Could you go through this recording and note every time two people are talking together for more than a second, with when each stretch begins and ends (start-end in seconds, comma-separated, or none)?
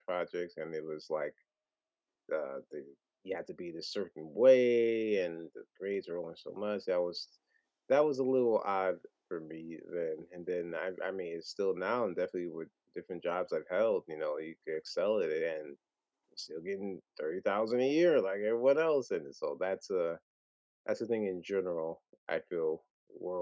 none